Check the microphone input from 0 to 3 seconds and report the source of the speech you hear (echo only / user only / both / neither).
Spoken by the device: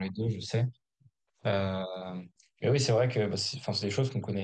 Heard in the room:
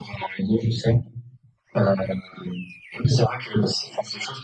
echo only